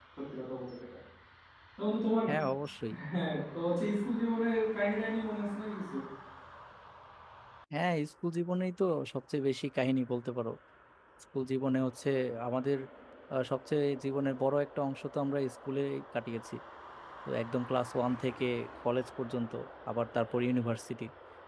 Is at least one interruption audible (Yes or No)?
No